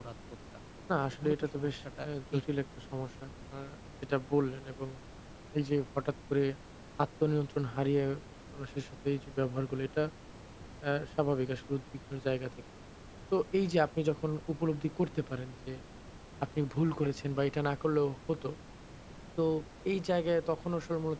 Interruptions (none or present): present